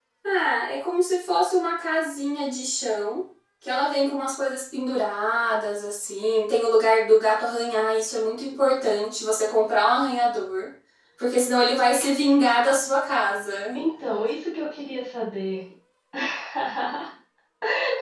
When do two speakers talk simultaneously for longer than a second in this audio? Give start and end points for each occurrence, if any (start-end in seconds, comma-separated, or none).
none